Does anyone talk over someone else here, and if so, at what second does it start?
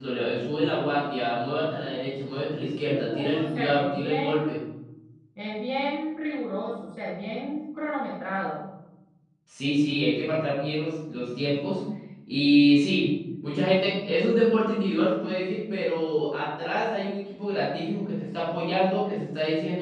2.8 s

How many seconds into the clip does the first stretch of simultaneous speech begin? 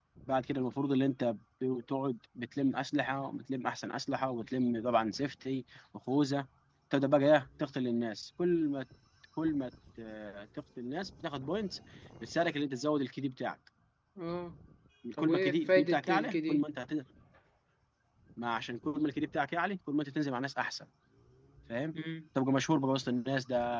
15.2 s

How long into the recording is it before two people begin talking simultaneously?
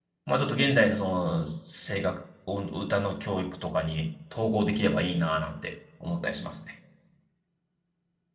none

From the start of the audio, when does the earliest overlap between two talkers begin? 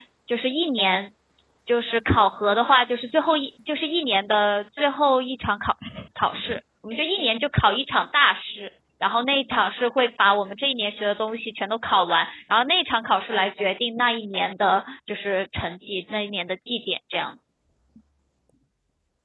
none

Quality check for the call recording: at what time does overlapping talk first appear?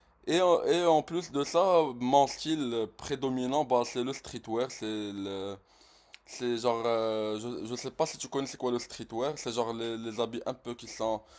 none

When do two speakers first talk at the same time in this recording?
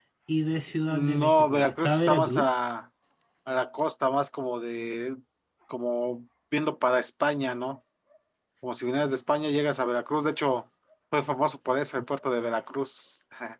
0.9 s

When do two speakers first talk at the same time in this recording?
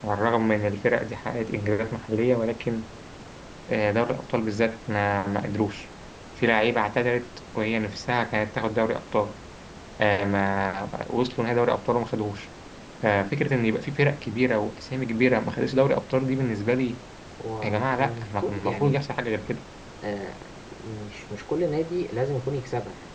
17.6 s

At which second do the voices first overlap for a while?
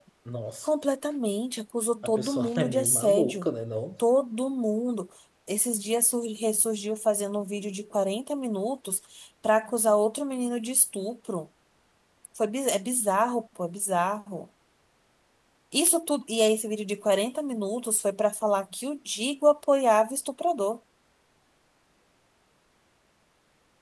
2.0 s

